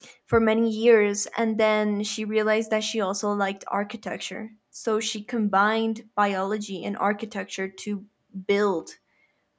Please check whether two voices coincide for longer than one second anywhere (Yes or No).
No